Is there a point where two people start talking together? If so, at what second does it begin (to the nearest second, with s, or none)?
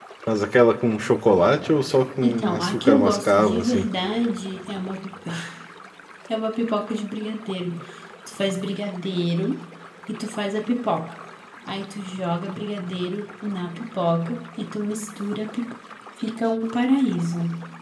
2 s